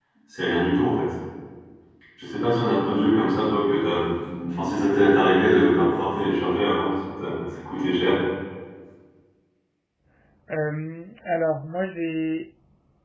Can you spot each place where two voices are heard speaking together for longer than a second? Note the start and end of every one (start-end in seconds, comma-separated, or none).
none